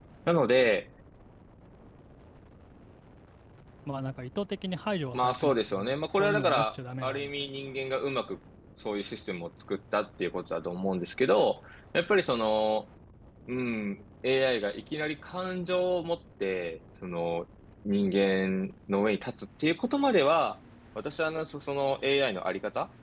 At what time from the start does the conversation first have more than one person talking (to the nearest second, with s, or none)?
5 s